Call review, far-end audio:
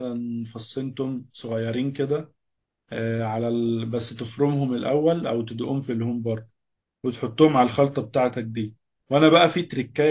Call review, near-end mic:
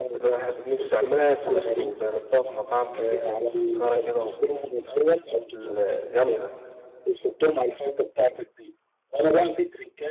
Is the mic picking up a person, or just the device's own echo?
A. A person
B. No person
A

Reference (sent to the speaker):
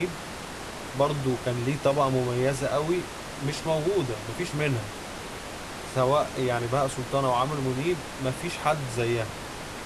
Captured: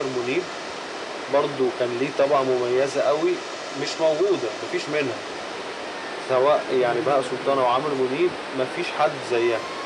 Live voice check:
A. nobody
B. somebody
B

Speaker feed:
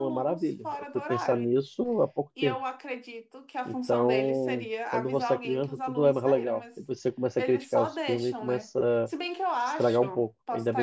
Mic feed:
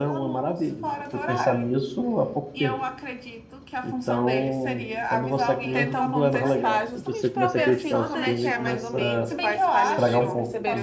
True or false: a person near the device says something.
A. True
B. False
A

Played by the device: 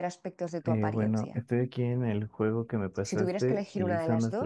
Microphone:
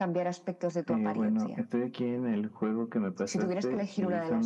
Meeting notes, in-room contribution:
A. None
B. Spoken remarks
A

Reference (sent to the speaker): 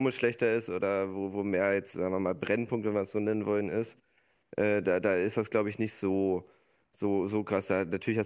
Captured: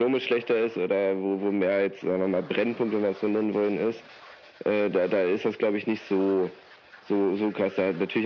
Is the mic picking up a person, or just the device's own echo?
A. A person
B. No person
B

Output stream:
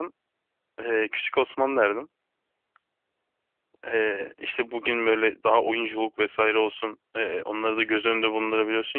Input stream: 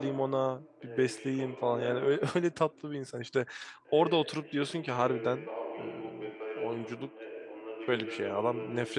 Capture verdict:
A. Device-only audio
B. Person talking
B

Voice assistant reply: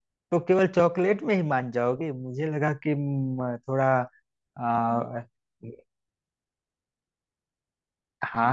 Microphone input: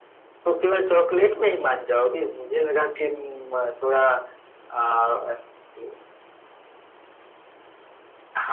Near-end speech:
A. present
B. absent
B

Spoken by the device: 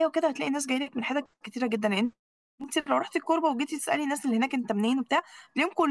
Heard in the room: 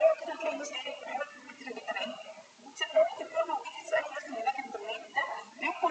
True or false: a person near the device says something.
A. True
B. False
B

